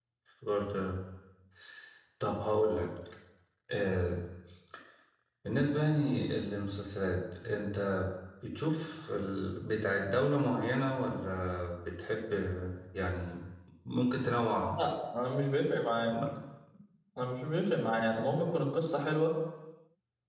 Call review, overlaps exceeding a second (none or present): none